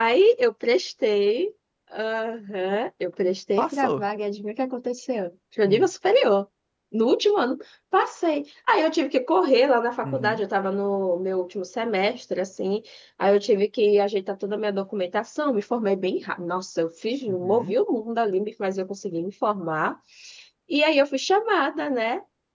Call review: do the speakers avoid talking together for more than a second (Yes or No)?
Yes